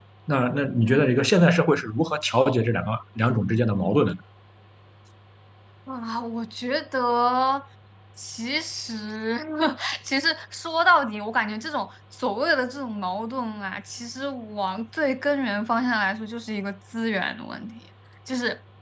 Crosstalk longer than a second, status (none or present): none